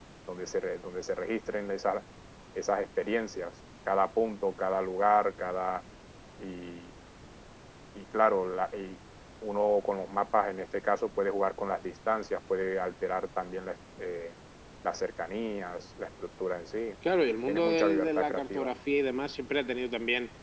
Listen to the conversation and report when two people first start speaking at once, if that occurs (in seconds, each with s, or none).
17.5 s